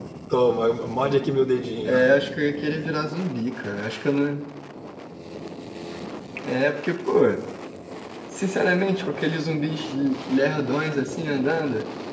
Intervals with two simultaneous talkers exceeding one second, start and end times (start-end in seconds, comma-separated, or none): none